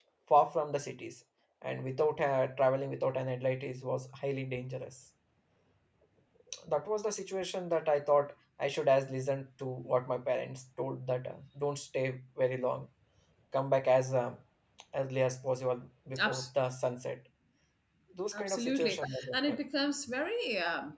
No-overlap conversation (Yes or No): No